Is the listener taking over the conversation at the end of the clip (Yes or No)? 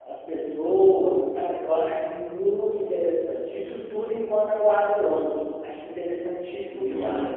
Yes